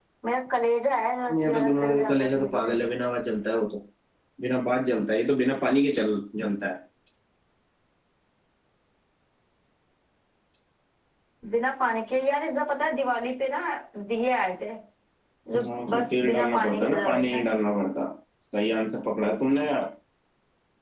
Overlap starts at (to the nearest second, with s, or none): 1 s